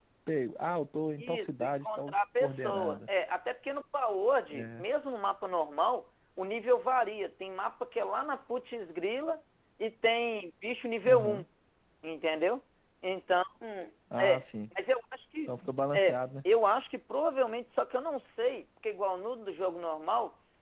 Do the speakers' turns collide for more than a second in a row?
Yes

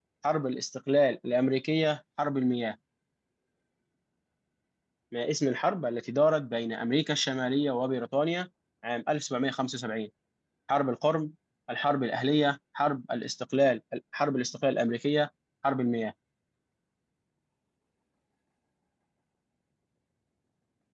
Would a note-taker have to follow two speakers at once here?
No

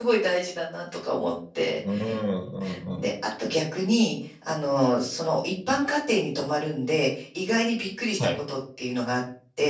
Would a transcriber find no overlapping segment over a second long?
Yes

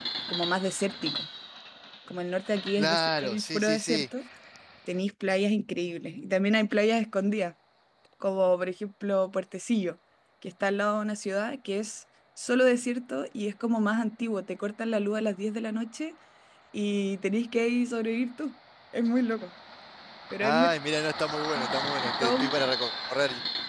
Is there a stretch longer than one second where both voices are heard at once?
Yes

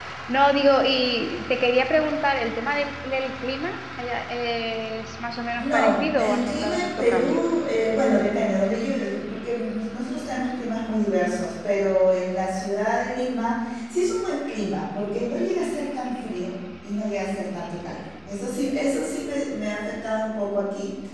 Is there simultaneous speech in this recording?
Yes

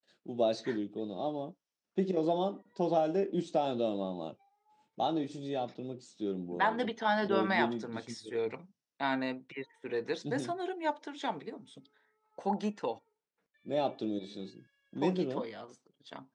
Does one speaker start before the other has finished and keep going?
Yes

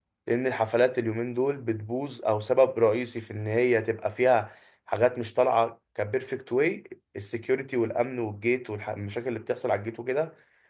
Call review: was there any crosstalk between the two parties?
No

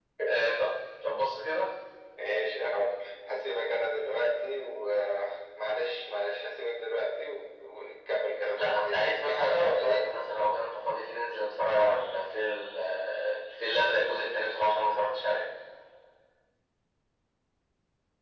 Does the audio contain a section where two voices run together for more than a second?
Yes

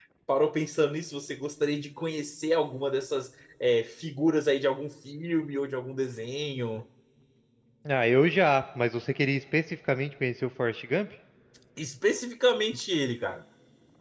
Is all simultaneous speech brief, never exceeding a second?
Yes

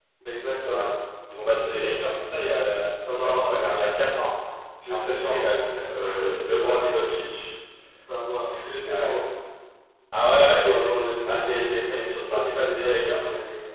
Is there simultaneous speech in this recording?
Yes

